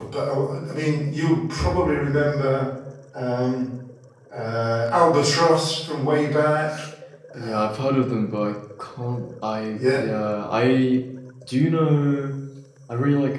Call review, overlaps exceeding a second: none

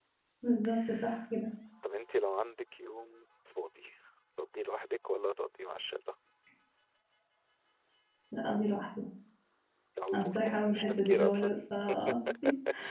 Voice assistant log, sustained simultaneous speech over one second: present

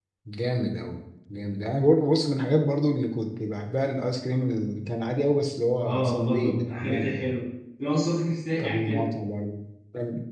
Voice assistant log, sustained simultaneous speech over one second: present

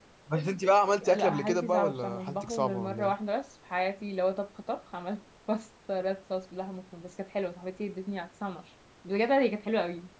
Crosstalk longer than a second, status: present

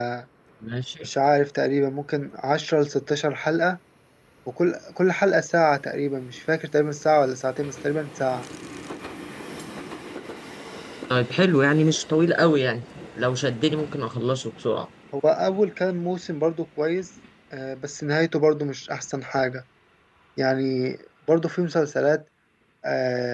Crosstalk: none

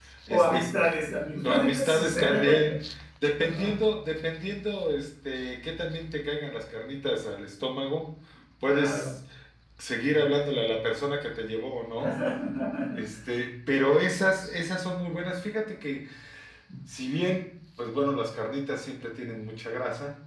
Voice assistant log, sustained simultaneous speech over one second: present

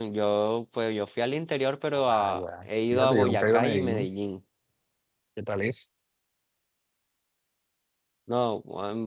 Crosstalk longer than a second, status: present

